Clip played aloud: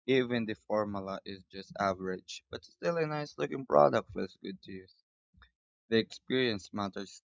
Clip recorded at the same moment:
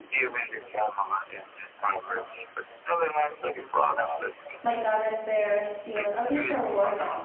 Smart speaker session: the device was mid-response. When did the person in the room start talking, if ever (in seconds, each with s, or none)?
4.6 s